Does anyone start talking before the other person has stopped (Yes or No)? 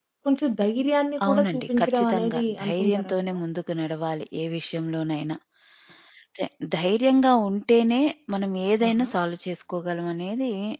Yes